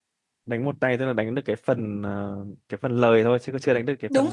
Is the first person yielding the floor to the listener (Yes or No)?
Yes